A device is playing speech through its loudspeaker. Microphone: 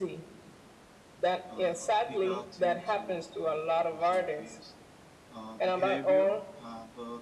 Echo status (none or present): present